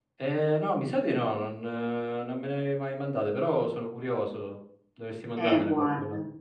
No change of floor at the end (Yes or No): No